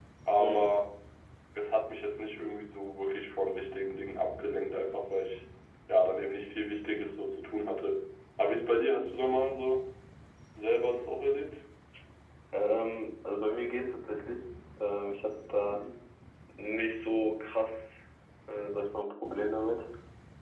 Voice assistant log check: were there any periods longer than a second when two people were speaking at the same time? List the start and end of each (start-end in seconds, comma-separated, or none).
none